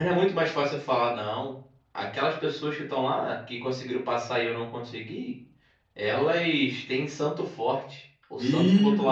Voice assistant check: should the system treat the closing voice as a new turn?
Yes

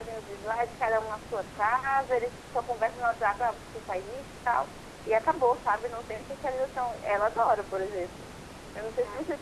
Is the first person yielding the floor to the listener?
No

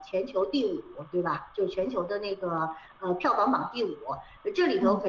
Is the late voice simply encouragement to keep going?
Yes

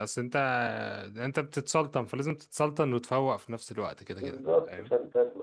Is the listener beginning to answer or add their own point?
Yes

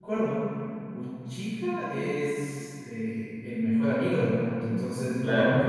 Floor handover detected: No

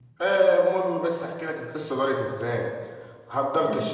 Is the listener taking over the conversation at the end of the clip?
No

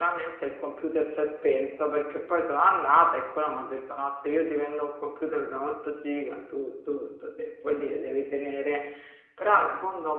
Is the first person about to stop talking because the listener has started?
No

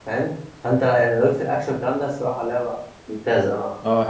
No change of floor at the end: No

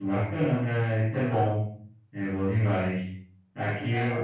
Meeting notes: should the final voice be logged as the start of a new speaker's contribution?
No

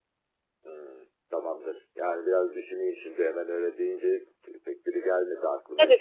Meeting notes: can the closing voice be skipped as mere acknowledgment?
No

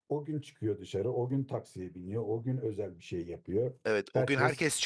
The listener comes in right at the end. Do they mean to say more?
Yes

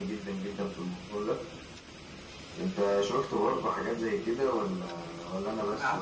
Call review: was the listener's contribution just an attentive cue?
No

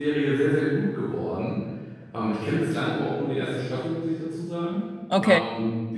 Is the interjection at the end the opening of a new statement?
No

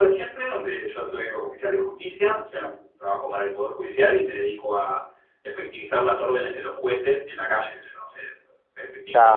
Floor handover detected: No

